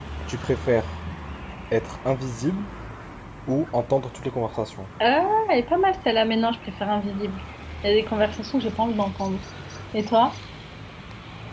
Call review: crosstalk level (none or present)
none